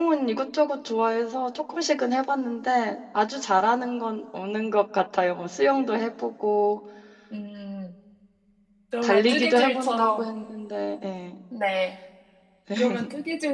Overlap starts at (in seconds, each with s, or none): 9.0 s